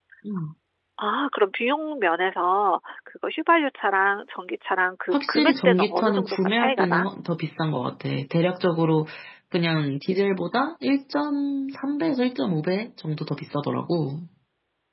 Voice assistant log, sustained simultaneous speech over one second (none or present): present